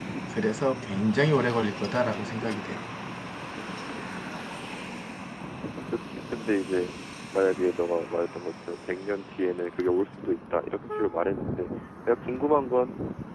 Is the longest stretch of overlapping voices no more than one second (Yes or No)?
Yes